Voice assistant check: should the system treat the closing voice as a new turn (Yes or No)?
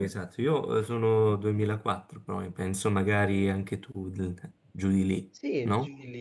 Yes